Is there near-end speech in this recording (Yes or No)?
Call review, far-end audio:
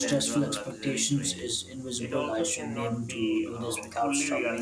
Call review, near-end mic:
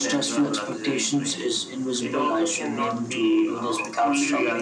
No